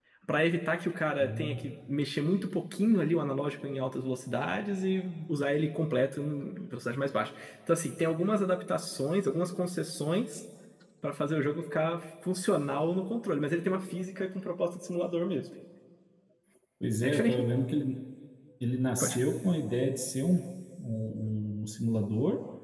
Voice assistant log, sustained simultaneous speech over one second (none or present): none